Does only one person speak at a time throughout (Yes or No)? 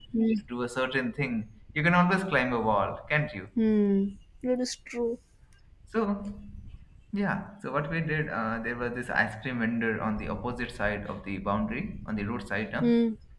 Yes